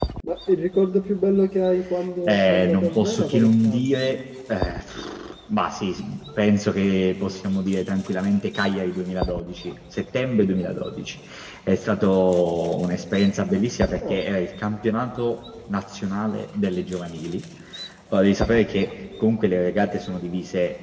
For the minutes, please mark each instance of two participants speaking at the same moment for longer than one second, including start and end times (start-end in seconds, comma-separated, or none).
2.2-3.8